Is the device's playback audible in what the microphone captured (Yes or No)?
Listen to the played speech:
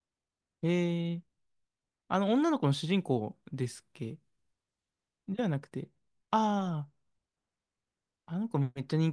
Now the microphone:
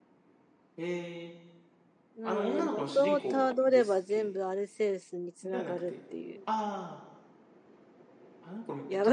Yes